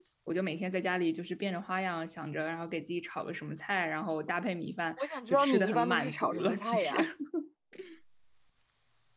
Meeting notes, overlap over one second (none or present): present